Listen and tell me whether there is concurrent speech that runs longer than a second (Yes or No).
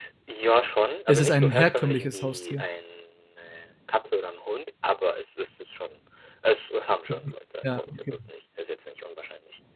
Yes